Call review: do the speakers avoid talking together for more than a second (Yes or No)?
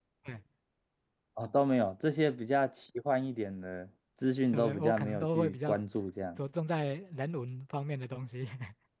No